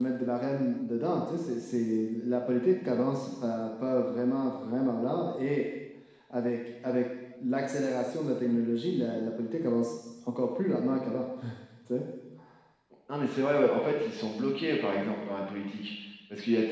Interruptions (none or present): none